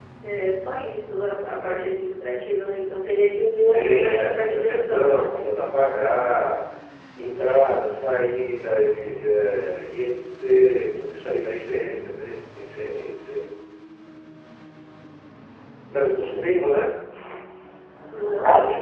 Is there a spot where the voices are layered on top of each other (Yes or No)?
Yes